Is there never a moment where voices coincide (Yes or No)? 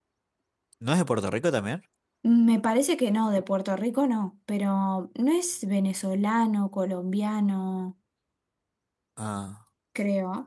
Yes